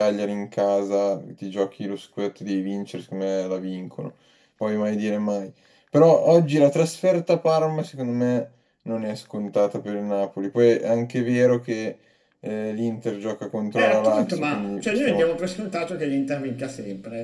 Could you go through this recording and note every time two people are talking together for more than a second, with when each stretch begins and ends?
13.8-15.3

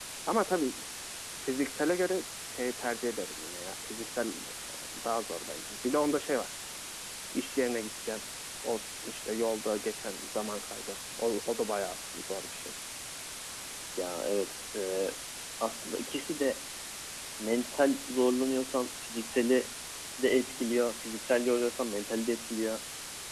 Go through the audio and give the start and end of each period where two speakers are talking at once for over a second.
none

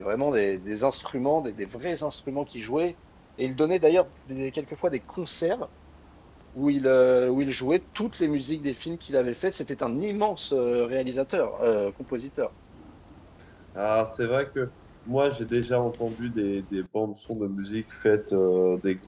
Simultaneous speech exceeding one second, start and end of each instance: none

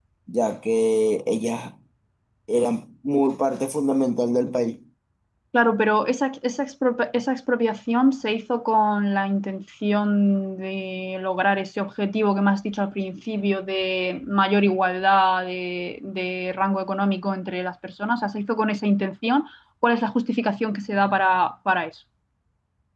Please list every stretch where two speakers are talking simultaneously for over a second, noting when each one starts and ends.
none

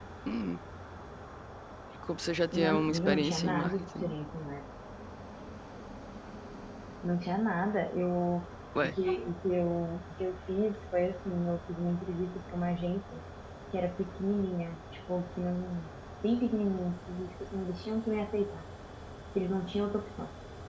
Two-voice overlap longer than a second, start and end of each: 2.5-4.1

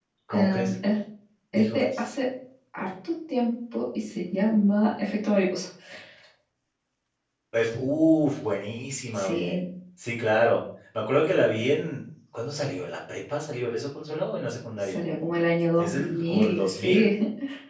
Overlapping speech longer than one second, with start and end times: 15.8-17.1

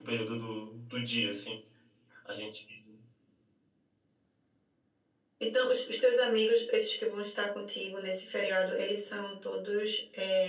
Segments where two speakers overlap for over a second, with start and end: none

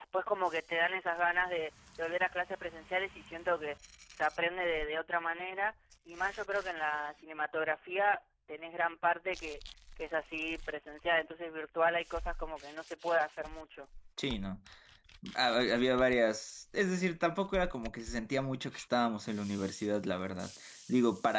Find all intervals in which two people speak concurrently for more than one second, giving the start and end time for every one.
none

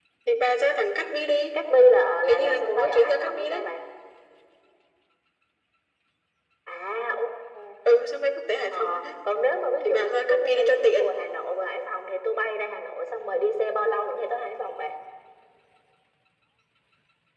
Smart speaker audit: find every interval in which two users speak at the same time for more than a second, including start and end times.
2.3-3.7, 9.8-11.1

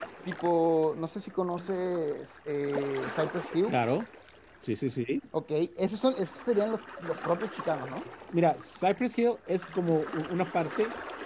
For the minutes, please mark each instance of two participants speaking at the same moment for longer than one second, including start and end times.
none

